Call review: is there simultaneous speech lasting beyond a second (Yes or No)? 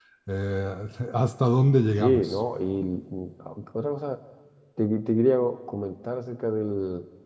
No